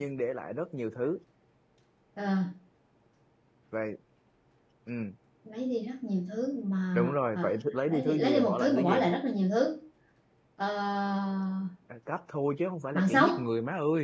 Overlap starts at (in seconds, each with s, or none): 6.9 s